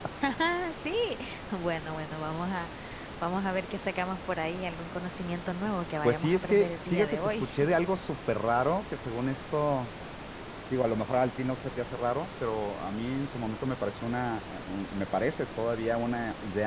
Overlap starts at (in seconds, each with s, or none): 6.0 s